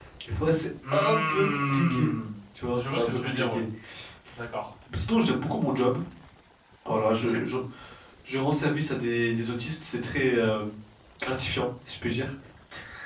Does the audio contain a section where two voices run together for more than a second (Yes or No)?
Yes